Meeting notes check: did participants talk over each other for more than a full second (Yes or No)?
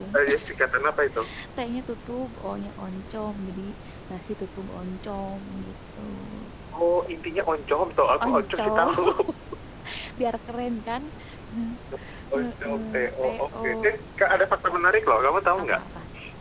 Yes